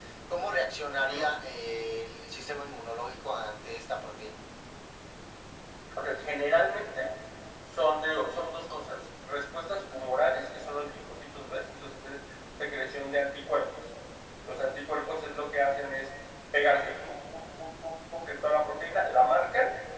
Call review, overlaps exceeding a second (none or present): none